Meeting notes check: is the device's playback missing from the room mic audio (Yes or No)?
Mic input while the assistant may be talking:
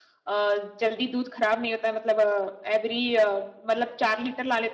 Yes